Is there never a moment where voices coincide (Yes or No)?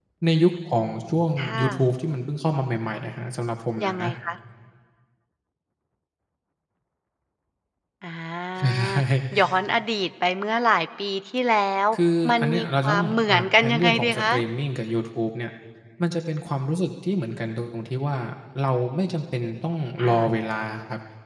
No